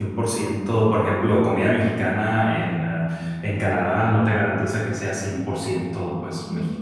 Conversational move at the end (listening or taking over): taking over